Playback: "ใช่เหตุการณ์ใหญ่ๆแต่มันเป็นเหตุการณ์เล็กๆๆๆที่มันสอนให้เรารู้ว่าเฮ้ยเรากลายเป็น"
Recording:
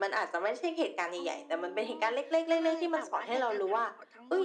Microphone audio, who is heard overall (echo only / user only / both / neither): both